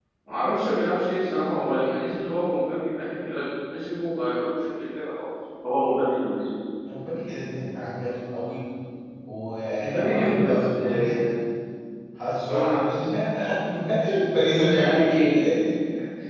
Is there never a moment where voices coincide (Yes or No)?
No